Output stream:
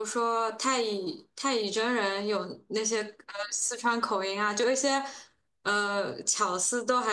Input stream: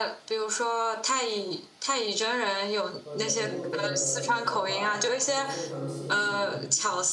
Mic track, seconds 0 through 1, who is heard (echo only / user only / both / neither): echo only